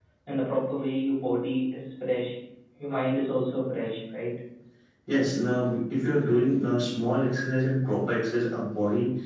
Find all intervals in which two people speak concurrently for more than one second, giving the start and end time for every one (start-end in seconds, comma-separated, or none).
none